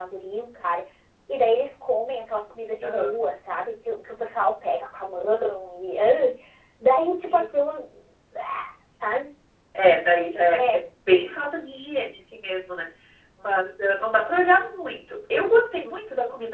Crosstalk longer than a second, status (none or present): none